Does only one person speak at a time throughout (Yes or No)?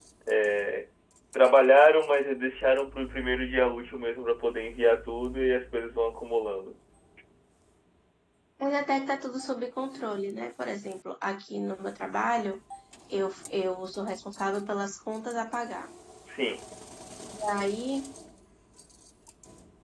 Yes